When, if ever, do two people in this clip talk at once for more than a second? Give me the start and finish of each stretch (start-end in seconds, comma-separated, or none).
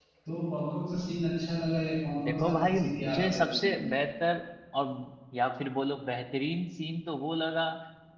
2.2-3.7